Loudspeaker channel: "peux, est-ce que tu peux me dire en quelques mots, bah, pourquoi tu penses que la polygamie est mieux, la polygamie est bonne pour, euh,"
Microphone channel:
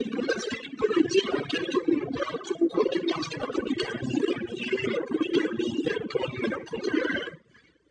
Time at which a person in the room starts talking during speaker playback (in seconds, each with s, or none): none